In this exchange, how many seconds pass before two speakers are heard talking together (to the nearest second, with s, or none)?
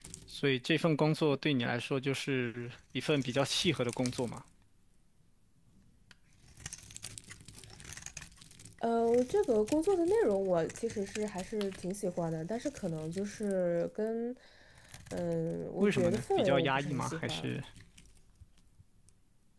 16 s